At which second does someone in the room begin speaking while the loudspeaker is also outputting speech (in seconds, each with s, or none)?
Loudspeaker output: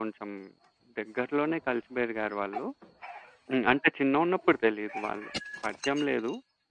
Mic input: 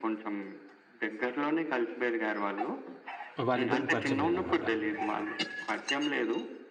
3.5 s